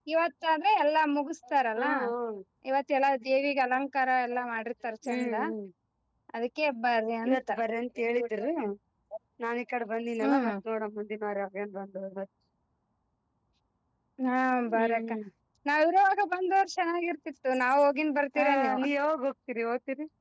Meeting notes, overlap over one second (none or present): none